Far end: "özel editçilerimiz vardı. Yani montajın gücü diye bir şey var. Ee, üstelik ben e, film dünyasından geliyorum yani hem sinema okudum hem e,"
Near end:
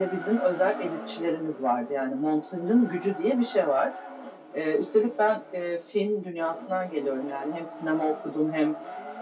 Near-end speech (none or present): none